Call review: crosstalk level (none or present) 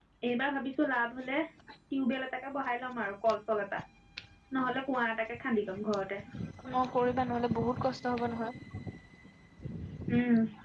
none